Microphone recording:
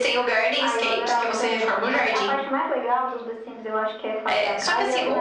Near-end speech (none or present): none